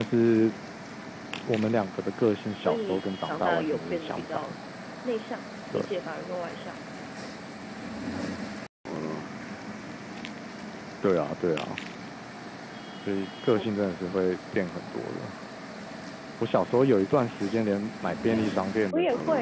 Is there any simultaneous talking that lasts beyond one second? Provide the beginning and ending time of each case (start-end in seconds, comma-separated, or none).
2.6-4.4